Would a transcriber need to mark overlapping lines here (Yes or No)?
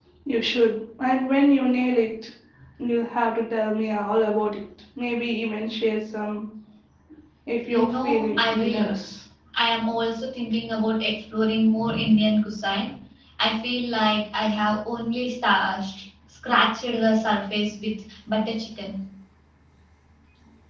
Yes